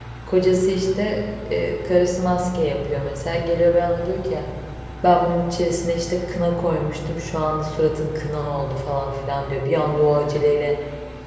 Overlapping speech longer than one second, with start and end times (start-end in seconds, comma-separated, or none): none